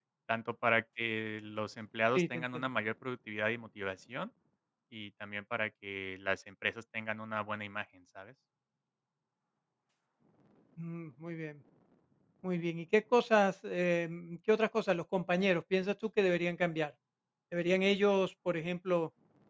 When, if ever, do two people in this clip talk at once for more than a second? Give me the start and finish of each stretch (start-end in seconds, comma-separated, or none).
none